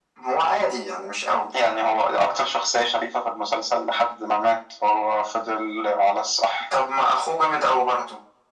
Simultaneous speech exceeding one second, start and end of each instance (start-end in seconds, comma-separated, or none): none